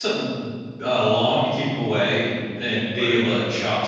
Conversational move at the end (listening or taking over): listening